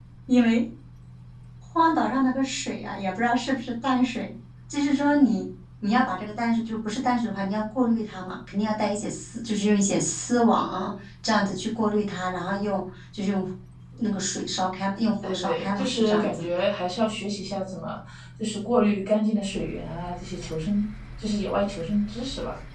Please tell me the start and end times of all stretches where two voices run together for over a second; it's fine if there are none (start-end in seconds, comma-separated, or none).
15.2-16.5